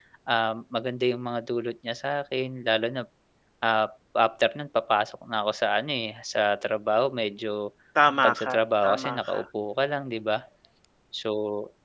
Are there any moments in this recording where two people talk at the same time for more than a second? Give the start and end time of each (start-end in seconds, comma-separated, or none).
8.2-9.4